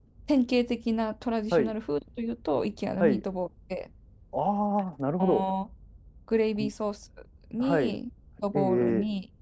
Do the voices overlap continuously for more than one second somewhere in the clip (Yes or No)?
No